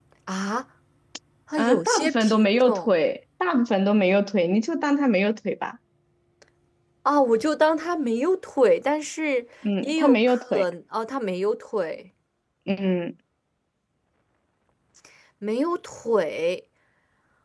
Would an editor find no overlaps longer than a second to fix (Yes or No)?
No